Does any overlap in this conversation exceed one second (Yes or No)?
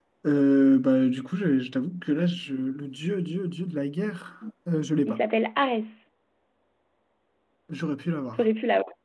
No